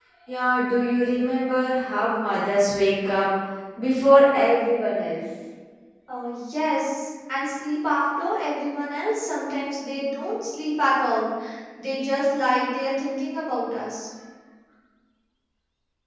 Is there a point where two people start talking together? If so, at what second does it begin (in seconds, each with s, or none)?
none